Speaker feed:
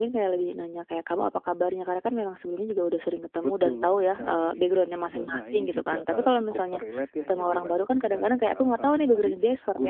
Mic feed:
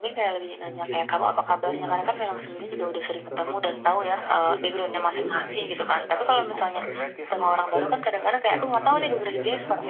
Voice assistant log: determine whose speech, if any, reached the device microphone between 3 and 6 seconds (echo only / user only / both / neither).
both